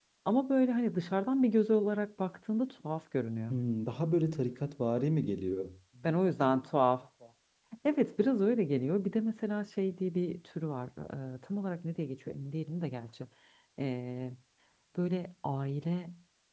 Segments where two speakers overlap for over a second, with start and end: none

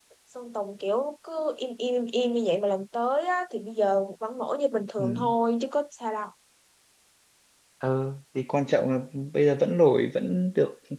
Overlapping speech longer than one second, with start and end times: none

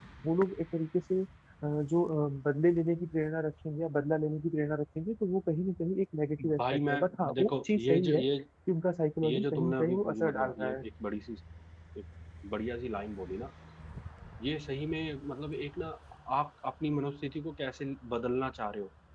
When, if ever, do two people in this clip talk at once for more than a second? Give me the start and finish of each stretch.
6.6-8.2, 9.2-10.8

